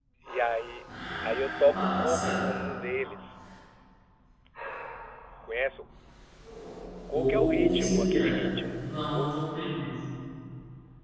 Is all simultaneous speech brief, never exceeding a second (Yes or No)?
No